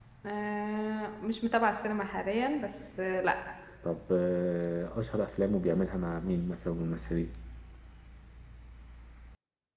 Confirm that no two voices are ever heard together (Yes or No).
Yes